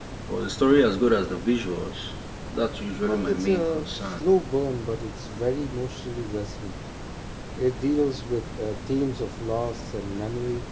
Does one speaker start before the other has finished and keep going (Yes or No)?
Yes